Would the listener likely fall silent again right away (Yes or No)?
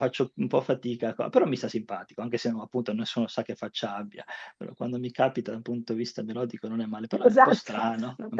No